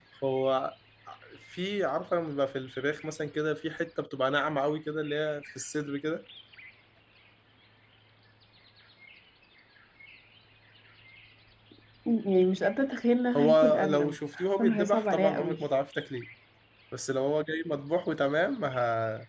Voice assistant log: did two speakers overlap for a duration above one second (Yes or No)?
Yes